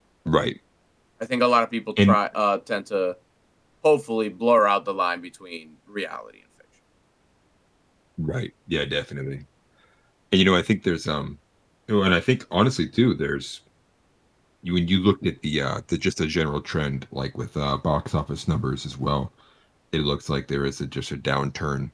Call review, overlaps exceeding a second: none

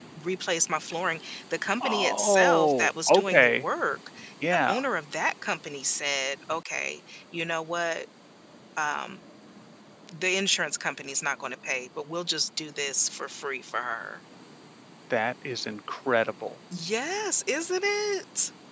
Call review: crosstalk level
present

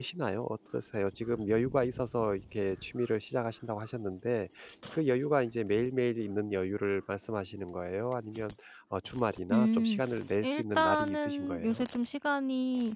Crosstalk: present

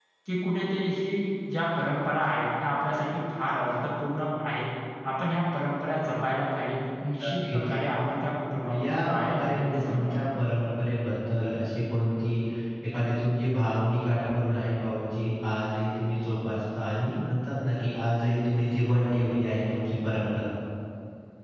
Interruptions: present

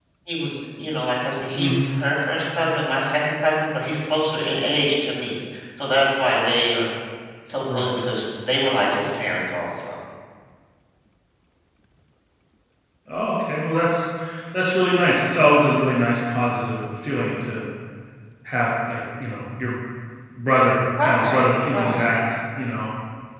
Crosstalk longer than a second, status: present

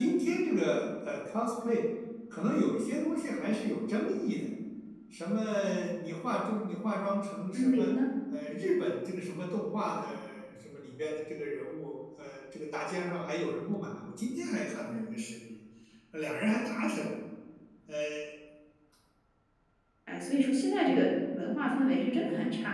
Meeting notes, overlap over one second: none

